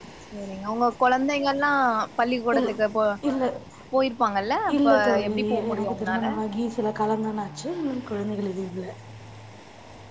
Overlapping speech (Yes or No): Yes